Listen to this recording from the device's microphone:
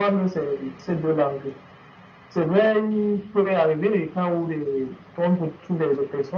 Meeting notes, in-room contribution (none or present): none